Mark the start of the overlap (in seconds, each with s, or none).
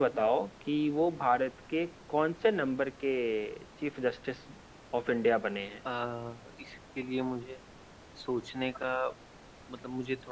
none